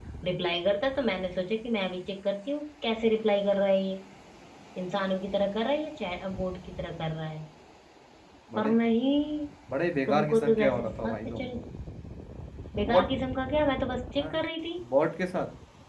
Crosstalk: present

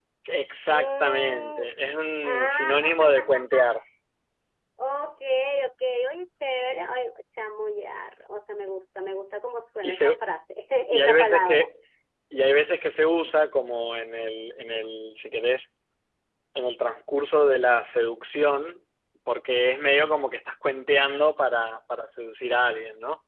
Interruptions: present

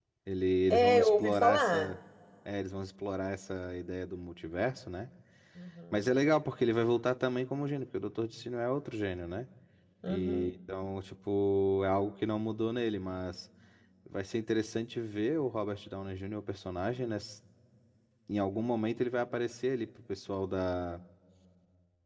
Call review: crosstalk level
present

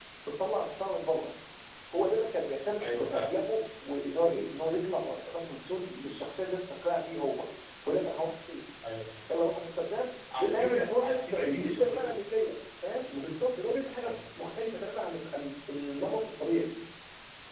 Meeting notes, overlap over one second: present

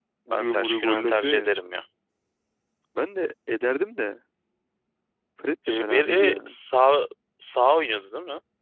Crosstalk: present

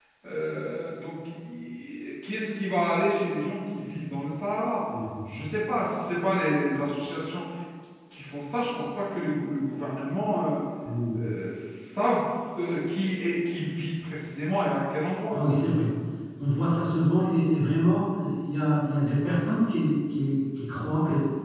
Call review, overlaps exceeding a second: none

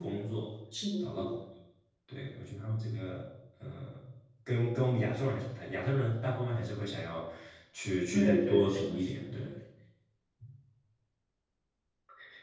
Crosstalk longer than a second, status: present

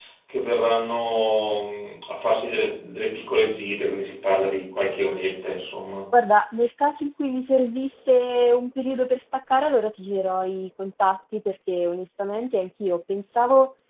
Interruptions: none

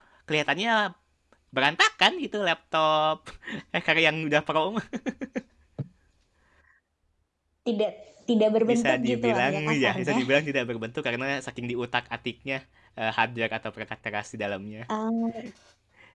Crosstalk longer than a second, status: present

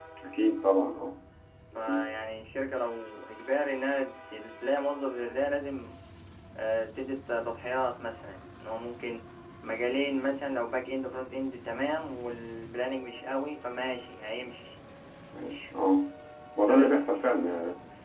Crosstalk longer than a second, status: none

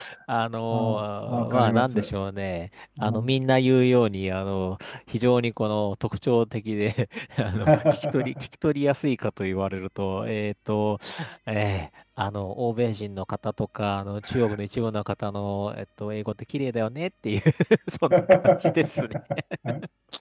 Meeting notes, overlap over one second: present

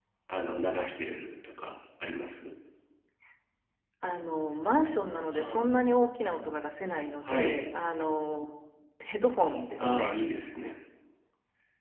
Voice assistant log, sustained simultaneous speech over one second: none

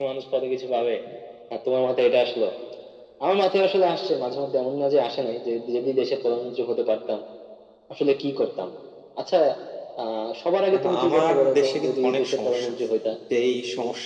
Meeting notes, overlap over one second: present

